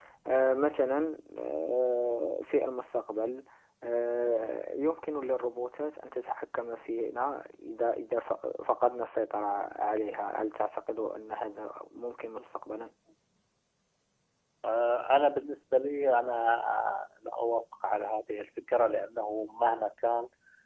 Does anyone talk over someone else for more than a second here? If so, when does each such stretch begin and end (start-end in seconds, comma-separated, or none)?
none